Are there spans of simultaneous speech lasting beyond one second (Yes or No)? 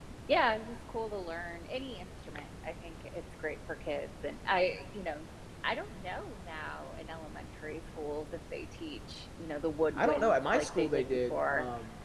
Yes